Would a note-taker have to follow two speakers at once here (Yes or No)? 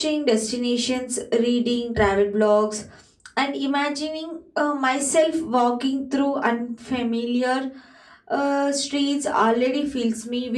No